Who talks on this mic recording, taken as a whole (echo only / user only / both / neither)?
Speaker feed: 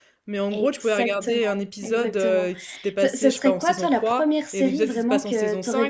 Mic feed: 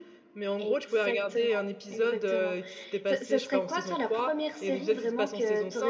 echo only